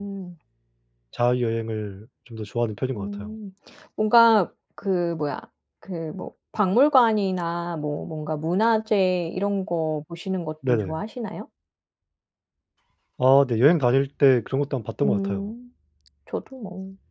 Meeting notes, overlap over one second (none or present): none